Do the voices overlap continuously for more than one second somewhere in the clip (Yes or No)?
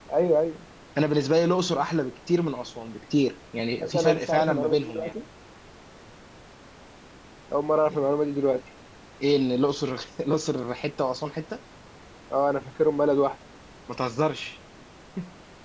Yes